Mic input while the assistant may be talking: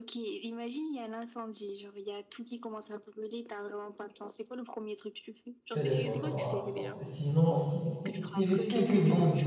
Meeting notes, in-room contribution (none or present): present